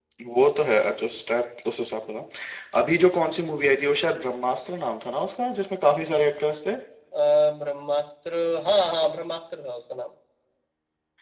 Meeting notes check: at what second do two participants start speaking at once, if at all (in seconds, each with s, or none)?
none